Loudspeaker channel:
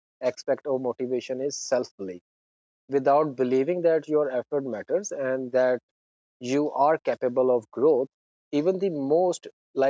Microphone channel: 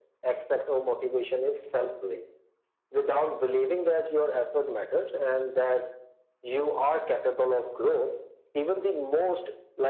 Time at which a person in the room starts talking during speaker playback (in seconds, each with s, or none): none